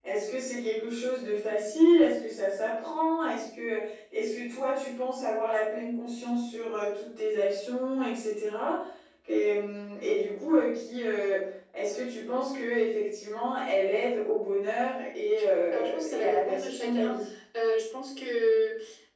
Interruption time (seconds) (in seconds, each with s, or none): 15.7 s